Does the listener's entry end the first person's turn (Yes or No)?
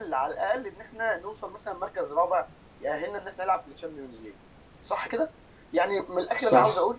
No